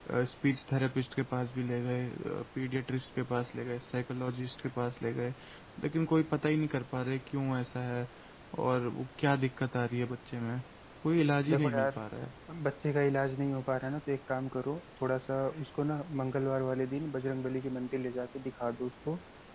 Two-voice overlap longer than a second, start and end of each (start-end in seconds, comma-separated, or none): none